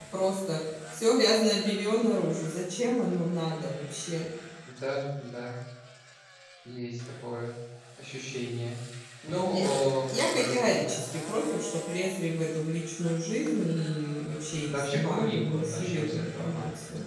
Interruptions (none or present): present